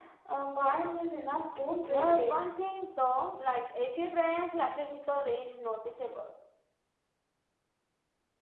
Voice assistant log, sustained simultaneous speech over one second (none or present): none